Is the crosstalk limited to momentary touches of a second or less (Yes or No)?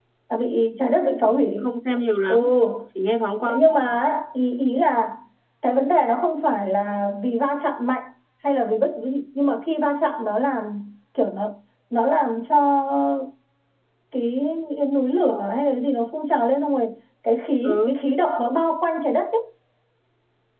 Yes